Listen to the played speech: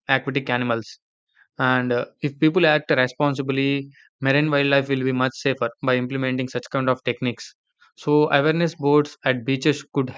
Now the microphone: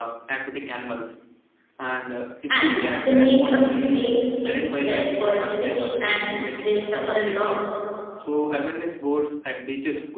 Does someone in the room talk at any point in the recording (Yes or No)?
Yes